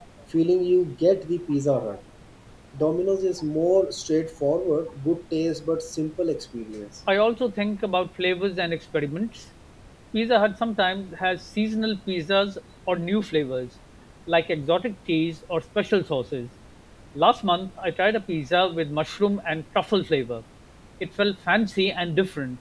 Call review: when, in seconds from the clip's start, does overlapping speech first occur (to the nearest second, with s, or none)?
none